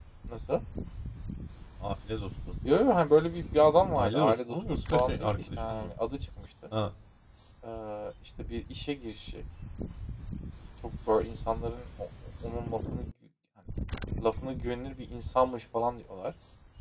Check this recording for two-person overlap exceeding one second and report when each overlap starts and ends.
3.9-5.9

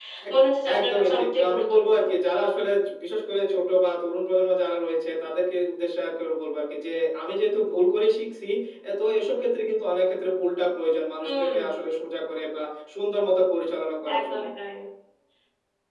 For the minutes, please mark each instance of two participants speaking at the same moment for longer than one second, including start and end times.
0.8-2.0

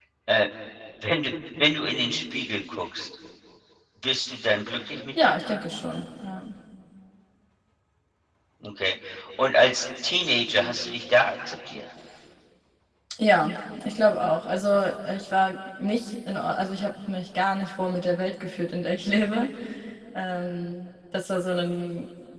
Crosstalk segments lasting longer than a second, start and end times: none

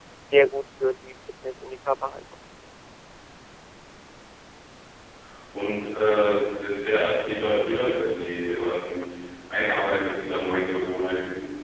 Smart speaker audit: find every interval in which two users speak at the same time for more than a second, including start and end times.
none

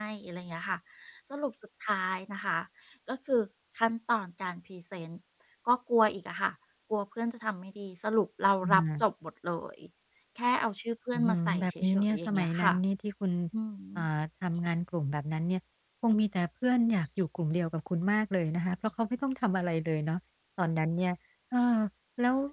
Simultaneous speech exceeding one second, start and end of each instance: 11.1-12.7

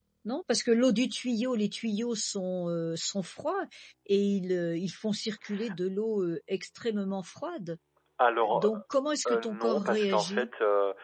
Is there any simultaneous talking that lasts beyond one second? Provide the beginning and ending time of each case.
9.3-10.5

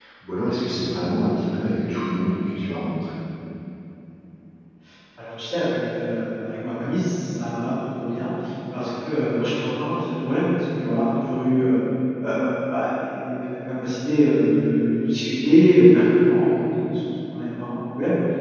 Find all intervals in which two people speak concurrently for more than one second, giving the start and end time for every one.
none

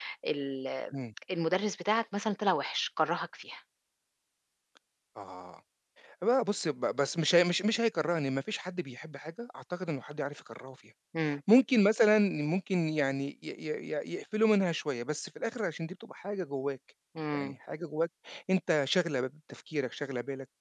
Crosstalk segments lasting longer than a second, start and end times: none

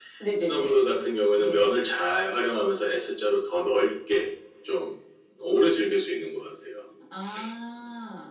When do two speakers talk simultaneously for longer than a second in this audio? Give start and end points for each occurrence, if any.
none

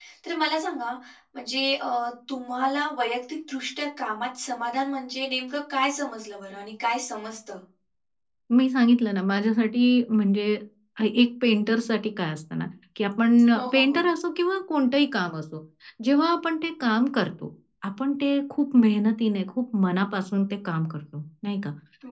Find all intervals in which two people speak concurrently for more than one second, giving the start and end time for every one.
none

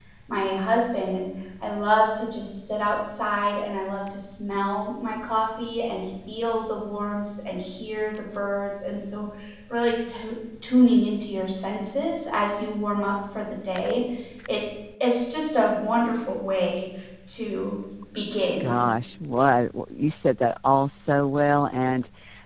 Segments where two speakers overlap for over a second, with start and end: none

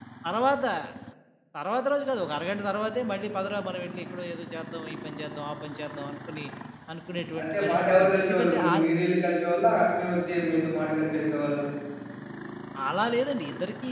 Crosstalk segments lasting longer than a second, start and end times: 7.4-8.7

